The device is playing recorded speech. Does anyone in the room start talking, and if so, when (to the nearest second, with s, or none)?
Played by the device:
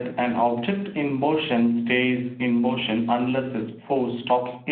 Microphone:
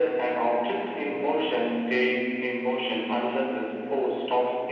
none